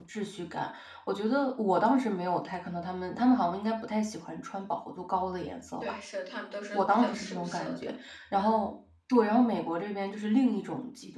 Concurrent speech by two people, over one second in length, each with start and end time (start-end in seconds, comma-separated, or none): 6.7-7.9